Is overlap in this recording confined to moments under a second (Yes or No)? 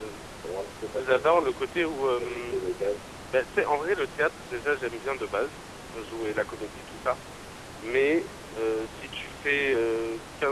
Yes